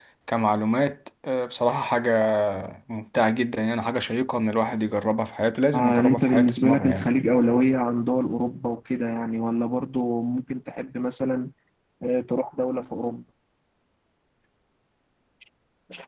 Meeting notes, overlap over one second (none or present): present